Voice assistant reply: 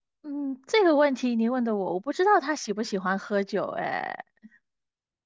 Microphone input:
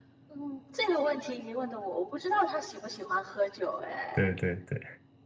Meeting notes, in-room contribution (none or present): present